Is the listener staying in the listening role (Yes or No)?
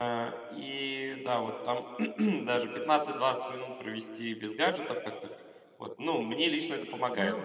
No